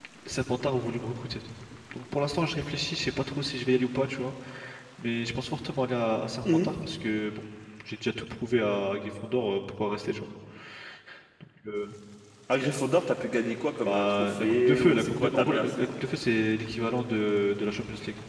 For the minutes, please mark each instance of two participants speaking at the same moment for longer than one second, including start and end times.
13.8-16.0

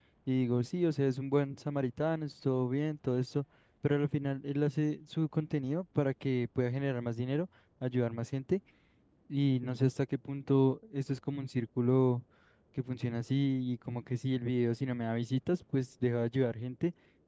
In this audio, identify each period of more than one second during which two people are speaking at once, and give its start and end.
none

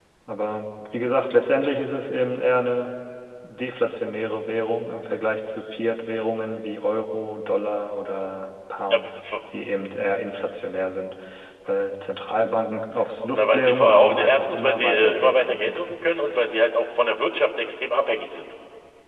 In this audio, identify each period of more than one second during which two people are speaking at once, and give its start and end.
13.3-16.0

